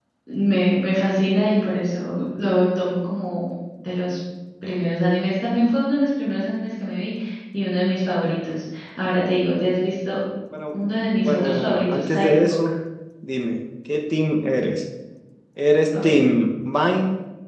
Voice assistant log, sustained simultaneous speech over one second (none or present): present